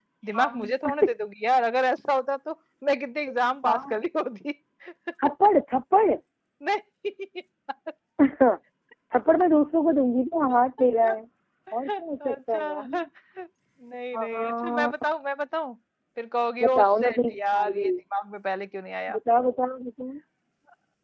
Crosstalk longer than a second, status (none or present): present